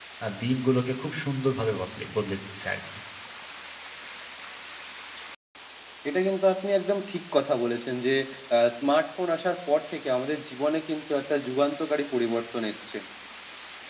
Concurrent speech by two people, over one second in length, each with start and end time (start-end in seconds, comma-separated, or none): none